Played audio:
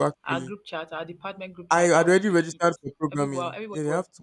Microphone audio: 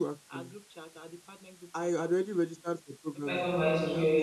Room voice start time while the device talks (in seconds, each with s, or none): 3.2 s